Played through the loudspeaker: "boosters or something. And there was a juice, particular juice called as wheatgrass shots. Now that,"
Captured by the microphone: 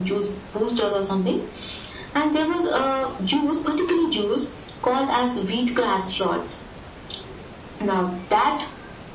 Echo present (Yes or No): Yes